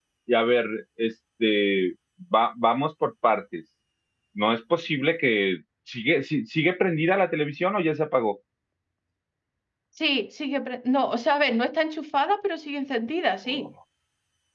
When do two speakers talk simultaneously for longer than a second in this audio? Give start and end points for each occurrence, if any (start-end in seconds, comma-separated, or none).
none